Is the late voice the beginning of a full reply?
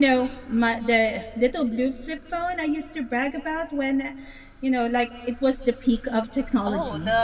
Yes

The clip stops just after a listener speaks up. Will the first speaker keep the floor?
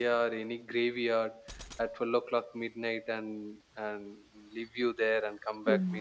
No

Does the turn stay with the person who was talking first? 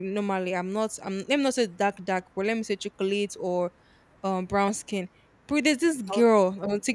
Yes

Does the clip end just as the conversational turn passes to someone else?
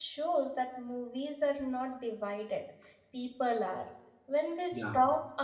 No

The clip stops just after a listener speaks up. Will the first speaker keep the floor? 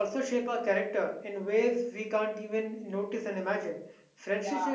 Yes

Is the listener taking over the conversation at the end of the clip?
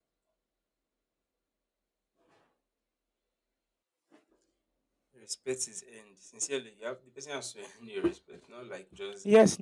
Yes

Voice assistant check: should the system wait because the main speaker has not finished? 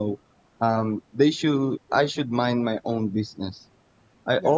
No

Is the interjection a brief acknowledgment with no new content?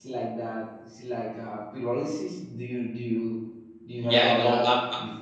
No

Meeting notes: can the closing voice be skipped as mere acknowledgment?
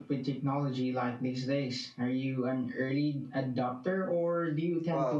No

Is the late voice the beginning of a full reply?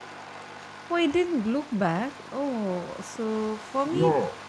No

